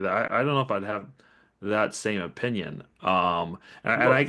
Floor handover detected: No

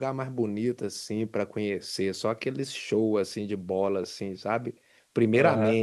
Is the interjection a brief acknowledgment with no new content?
Yes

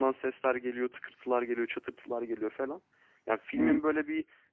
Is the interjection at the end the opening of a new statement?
No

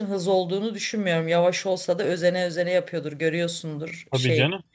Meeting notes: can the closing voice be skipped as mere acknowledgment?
Yes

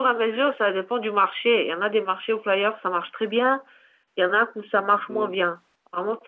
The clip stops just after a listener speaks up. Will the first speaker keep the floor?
Yes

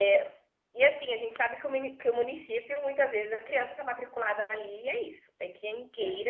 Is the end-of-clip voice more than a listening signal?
No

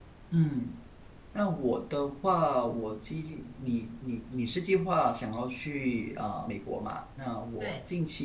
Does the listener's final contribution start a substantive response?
No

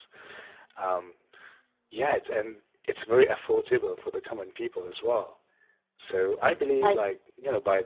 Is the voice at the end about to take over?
No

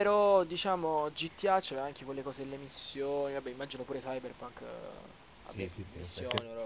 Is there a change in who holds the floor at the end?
Yes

